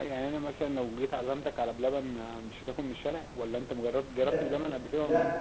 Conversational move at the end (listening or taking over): taking over